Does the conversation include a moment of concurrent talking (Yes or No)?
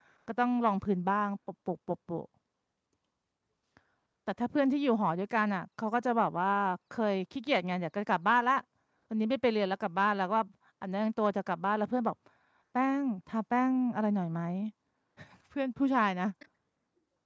No